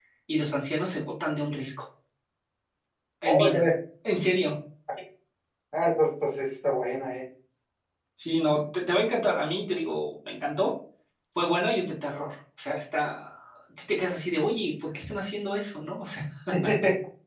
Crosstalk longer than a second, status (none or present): none